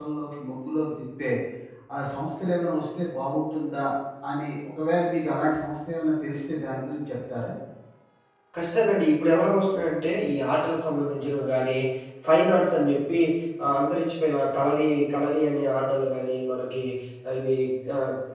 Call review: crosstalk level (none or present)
none